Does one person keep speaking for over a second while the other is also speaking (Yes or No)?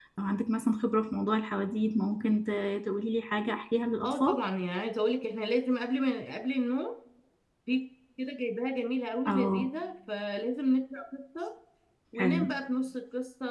No